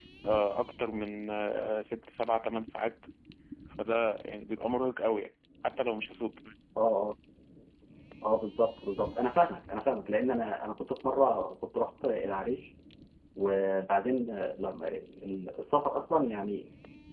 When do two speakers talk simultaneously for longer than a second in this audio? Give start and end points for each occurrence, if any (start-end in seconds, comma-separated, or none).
none